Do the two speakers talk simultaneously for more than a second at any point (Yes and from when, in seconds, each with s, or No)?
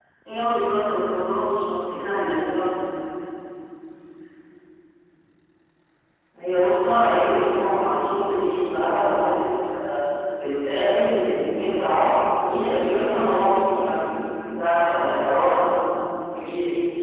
No